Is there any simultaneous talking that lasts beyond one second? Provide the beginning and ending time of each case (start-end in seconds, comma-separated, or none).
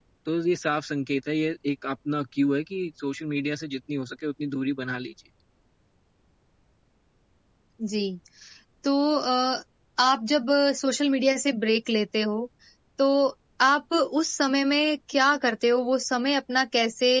none